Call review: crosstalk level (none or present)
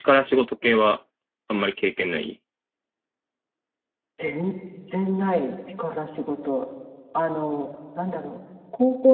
none